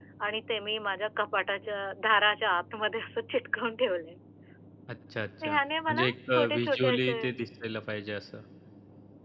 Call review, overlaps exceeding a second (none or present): present